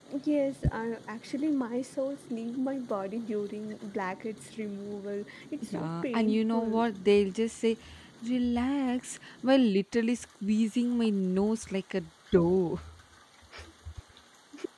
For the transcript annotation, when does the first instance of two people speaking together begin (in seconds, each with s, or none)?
5.6 s